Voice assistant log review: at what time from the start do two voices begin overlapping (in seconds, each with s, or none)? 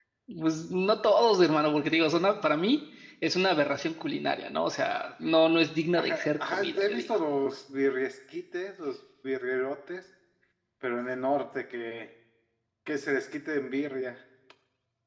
6.0 s